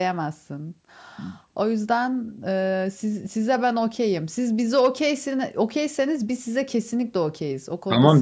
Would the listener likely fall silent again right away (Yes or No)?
No